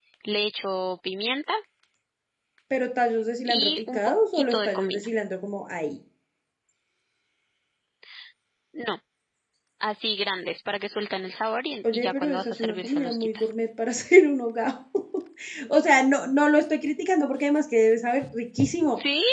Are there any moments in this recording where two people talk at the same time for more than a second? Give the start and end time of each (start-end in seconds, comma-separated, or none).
3.5-5.1, 11.9-13.5